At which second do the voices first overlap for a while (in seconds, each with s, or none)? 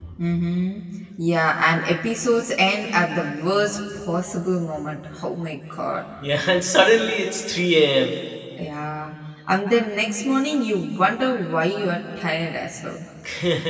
none